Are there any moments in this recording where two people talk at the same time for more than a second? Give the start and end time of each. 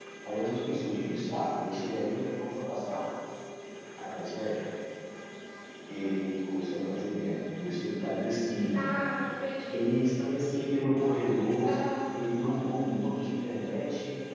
none

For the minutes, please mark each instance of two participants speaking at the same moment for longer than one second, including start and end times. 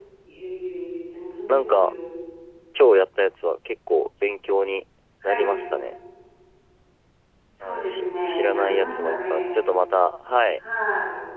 7.6-9.6

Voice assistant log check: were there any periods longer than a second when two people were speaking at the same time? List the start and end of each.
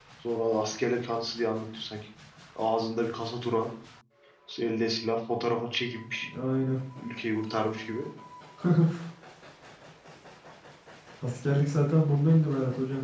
none

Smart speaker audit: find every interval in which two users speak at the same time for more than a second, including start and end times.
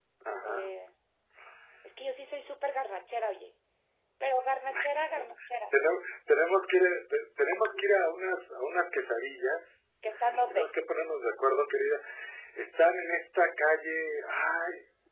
none

